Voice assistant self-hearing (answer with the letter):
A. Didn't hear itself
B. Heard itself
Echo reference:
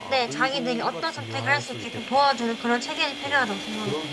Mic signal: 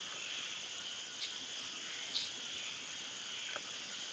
A